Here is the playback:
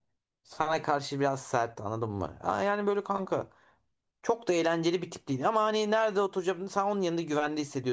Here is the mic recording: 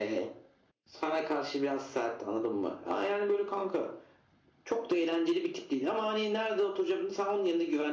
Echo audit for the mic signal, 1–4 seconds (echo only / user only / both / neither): echo only